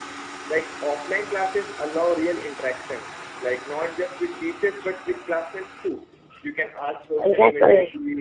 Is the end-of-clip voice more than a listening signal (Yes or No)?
No